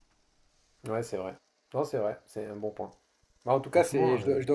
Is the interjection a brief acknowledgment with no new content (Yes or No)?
Yes